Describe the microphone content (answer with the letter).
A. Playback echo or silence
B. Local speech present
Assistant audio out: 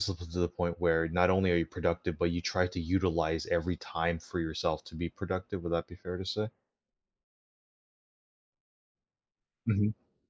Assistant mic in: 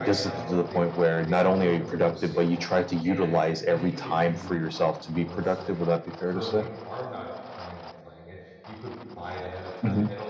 B